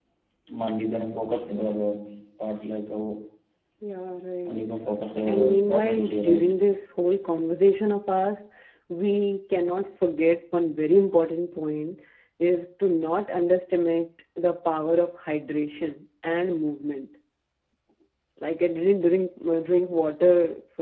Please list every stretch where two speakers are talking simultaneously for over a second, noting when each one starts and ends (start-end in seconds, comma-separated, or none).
5.3-6.5